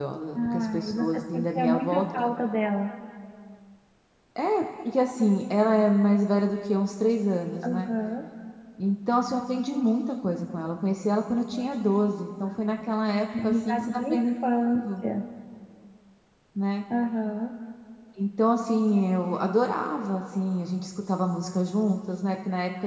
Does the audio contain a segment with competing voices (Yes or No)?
Yes